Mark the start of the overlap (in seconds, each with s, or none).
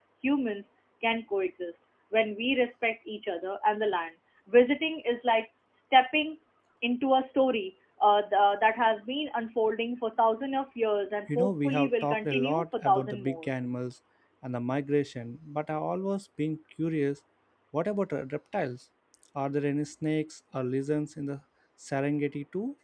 11.3 s